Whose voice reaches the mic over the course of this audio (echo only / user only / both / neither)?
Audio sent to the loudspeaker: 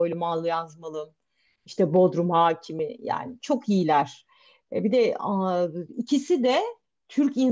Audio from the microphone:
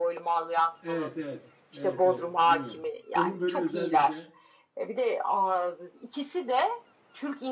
both